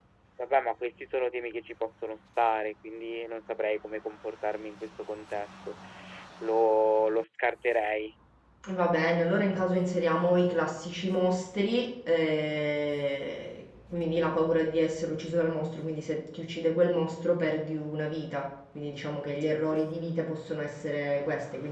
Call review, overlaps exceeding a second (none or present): none